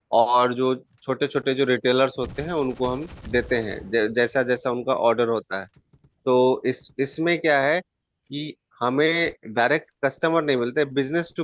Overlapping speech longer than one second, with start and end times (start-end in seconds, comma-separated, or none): none